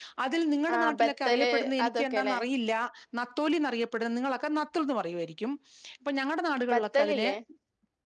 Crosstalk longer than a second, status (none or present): present